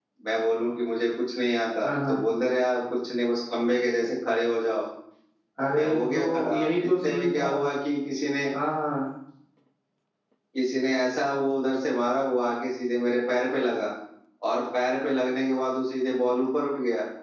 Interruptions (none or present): present